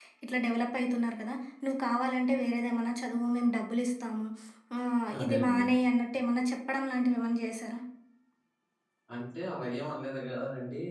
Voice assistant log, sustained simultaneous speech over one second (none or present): none